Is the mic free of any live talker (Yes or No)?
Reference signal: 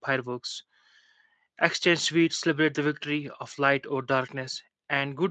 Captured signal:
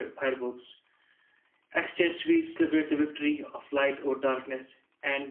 Yes